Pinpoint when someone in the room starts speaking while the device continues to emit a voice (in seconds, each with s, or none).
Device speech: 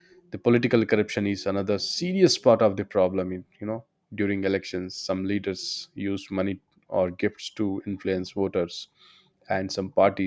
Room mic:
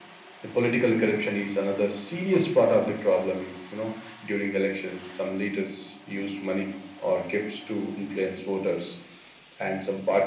none